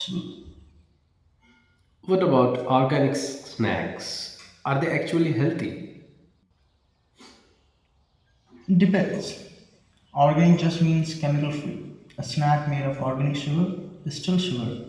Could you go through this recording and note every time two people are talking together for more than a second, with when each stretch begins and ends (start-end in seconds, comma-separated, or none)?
none